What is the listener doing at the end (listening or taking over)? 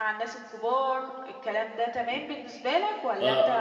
taking over